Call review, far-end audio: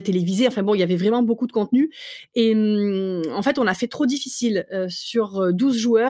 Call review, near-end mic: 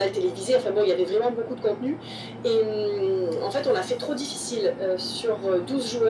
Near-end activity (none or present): none